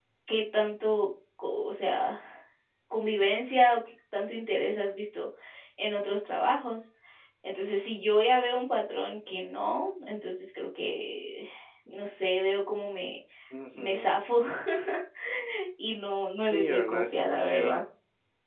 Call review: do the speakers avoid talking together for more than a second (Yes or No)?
No